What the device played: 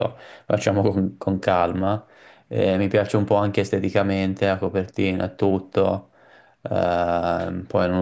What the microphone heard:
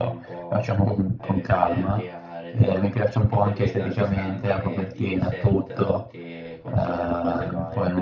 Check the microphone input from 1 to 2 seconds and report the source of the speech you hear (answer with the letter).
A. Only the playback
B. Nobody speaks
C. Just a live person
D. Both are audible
D